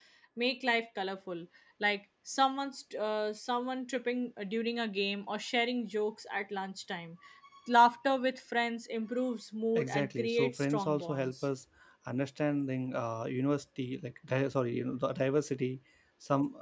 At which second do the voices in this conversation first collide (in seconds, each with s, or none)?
9.8 s